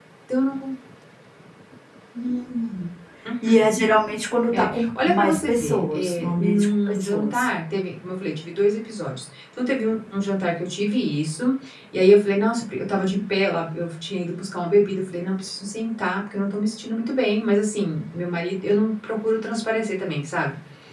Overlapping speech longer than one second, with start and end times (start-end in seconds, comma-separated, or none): 4.5-7.5